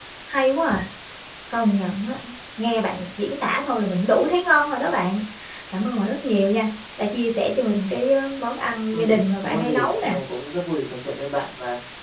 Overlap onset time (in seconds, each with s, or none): 8.9 s